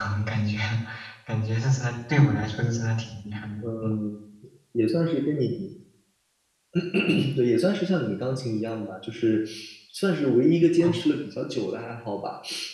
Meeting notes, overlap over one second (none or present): none